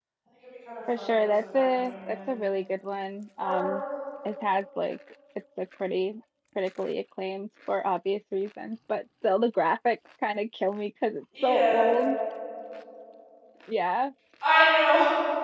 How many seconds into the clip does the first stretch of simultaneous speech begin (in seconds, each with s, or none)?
1.0 s